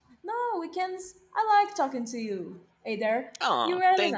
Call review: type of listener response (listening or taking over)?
taking over